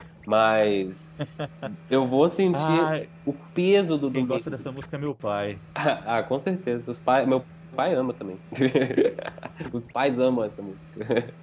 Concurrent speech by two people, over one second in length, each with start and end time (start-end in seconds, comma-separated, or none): none